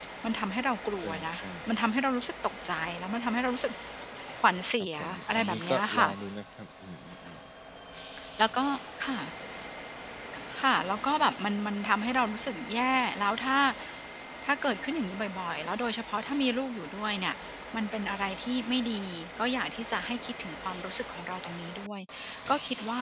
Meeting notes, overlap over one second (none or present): present